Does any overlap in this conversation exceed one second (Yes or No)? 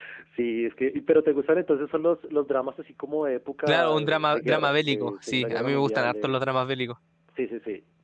Yes